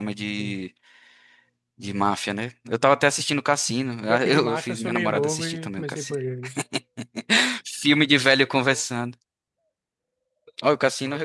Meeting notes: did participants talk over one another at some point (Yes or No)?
Yes